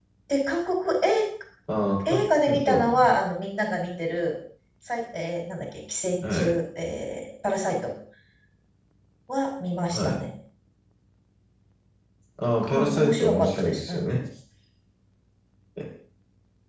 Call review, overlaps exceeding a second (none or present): present